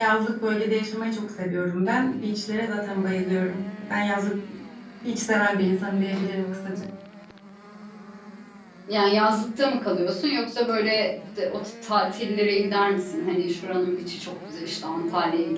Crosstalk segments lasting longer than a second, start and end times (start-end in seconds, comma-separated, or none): none